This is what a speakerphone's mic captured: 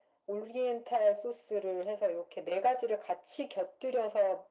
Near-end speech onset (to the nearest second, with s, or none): none